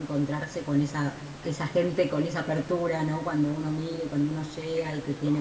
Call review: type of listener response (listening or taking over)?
listening